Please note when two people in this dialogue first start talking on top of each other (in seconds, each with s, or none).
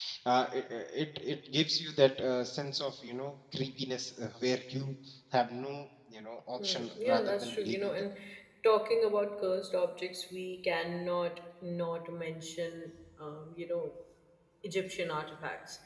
6.6 s